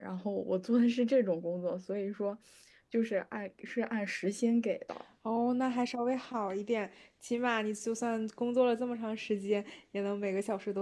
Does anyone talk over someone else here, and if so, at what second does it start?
none

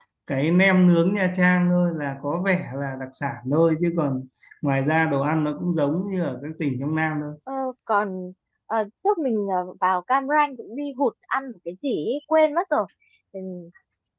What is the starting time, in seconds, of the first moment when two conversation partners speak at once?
none

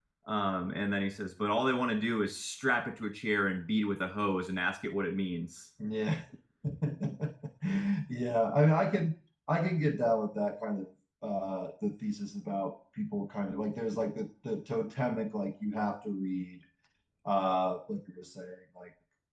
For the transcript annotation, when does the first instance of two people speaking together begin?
none

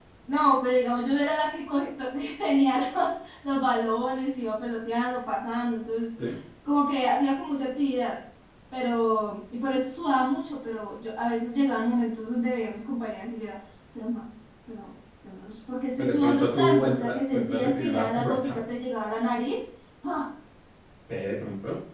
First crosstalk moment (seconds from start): 16.0 s

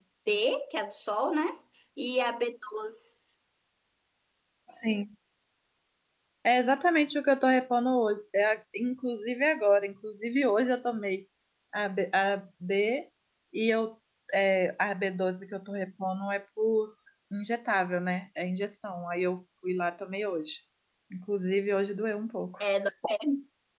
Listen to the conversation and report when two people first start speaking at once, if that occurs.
none

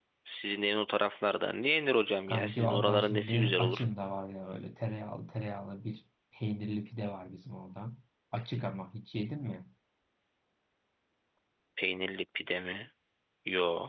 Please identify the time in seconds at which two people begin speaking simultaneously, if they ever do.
2.3 s

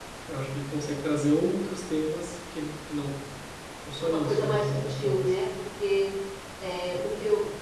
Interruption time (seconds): 4.0 s

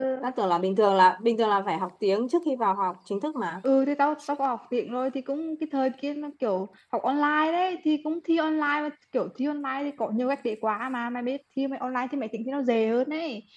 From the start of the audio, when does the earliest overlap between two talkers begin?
none

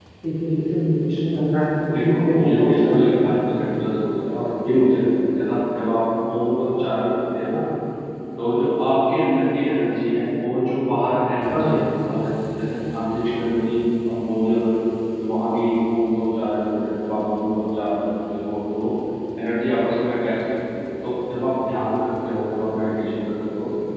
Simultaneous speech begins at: 1.9 s

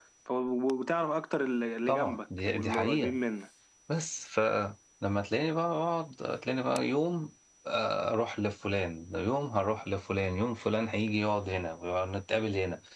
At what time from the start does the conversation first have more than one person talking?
1.9 s

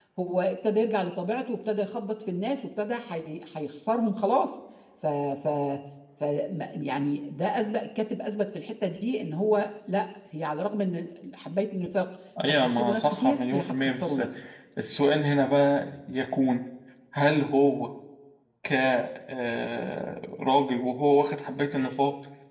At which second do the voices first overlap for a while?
12.6 s

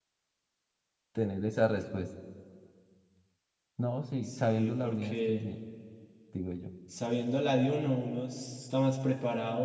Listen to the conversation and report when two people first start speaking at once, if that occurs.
4.2 s

